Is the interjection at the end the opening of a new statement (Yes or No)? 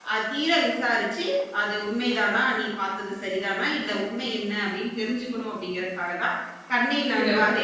No